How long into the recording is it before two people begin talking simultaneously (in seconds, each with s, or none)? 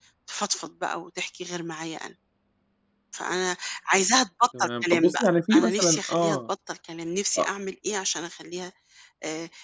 4.5 s